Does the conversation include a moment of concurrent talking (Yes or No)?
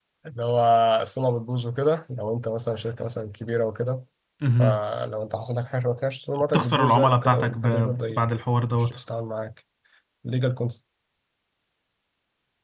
Yes